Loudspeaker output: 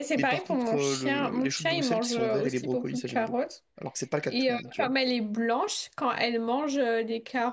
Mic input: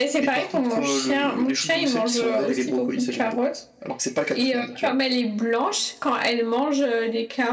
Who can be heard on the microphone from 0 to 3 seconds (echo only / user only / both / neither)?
echo only